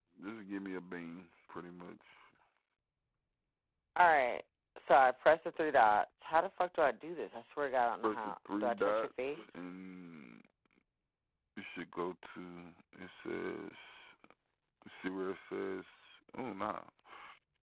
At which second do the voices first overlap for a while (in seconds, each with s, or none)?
8.0 s